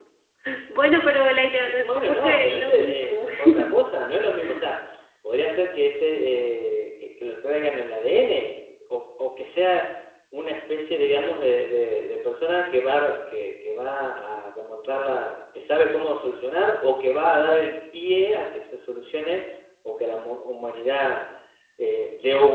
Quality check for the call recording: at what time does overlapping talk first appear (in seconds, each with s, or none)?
1.7 s